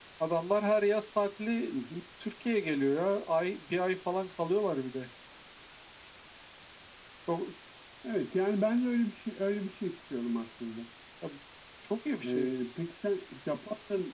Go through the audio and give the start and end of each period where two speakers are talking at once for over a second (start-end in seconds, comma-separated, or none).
none